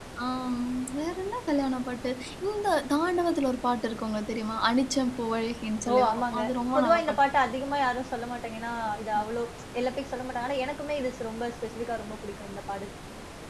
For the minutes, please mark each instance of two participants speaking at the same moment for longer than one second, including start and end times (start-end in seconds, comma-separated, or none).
5.9-7.2